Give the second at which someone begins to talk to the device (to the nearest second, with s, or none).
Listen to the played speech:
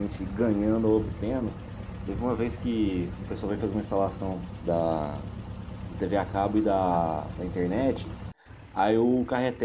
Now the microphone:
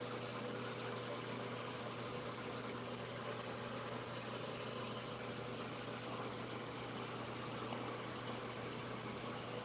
none